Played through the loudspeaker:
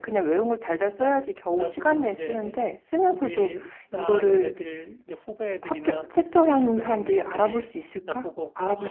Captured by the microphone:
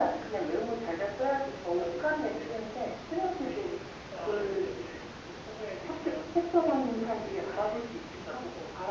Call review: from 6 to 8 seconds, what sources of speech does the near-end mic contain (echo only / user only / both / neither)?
echo only